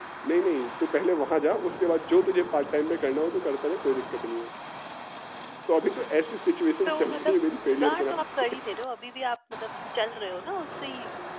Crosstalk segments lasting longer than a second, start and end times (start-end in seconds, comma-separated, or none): 6.8-8.6